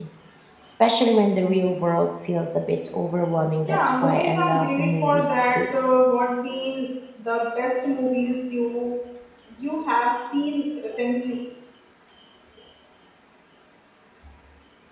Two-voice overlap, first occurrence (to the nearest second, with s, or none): 4 s